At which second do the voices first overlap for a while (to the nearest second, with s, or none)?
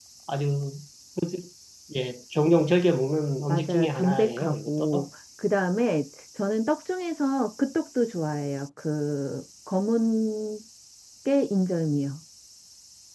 3 s